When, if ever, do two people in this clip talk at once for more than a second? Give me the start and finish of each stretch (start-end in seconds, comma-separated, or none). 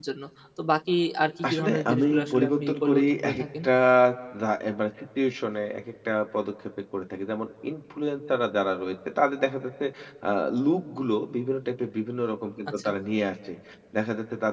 1.5-3.4